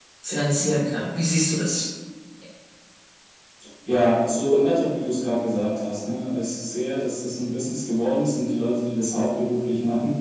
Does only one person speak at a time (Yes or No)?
Yes